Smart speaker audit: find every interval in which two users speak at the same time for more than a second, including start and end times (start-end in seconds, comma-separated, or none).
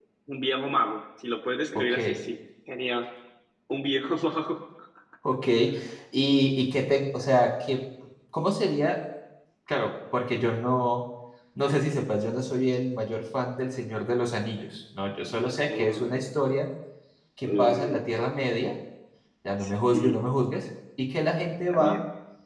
none